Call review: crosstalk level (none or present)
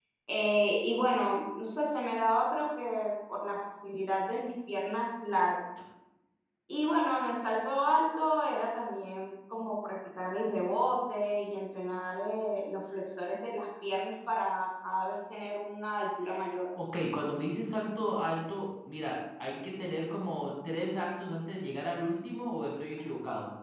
none